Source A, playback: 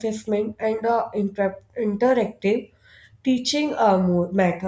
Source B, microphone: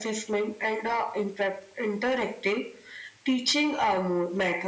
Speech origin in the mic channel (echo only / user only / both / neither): echo only